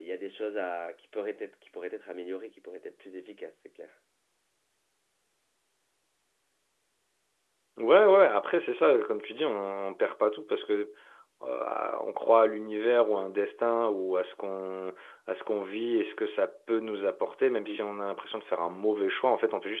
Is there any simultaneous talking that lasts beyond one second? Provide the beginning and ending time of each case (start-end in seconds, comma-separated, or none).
none